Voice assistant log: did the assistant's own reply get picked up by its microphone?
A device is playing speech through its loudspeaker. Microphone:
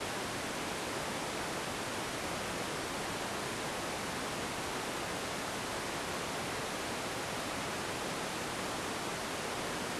No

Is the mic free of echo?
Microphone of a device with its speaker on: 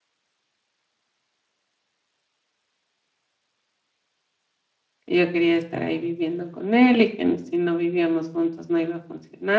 Yes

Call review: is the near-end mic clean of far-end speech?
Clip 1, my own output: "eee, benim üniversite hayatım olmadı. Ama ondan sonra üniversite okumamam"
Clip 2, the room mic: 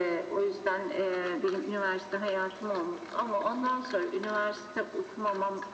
No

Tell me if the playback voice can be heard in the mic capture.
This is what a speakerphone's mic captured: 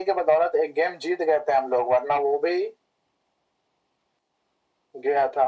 Yes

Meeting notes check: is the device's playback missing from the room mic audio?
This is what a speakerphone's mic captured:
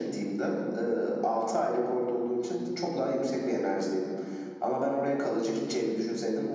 No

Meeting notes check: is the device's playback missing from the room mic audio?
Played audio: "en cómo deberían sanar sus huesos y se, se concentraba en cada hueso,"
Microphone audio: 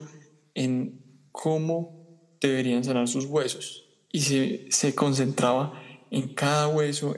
No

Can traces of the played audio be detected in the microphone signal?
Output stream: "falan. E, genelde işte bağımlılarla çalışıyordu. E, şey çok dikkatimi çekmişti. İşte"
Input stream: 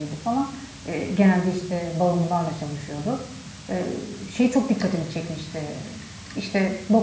Yes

